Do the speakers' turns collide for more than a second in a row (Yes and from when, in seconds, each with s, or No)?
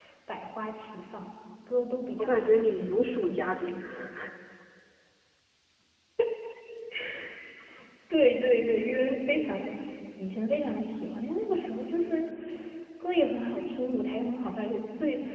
Yes, from 2.2 s